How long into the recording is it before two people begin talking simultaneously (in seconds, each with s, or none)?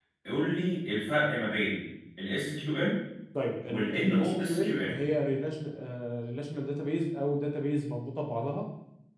3.7 s